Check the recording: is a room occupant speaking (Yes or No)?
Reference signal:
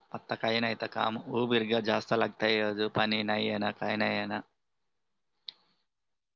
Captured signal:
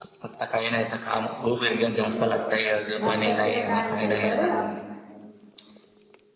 Yes